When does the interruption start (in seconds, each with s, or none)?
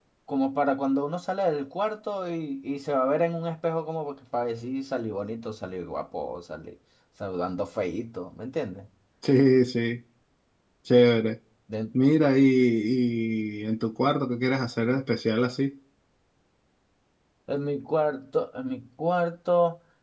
none